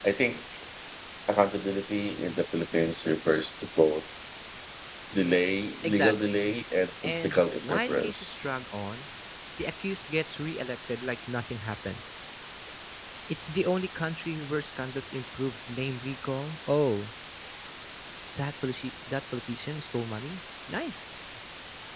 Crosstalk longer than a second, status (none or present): present